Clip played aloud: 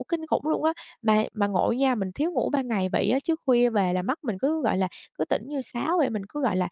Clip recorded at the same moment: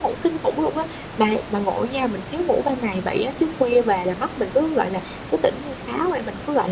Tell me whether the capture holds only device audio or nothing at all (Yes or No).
Yes